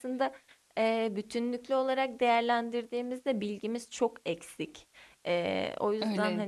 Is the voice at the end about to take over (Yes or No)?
Yes